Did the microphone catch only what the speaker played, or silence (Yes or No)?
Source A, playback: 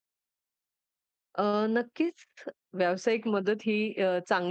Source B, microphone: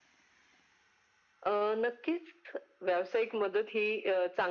Yes